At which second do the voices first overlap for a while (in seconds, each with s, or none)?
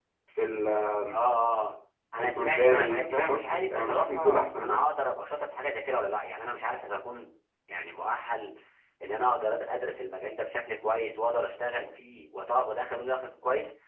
2.2 s